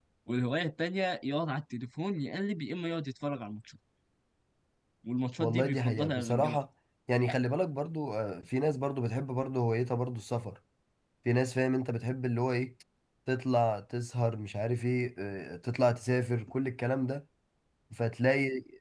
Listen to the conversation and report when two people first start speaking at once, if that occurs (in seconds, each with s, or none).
5.4 s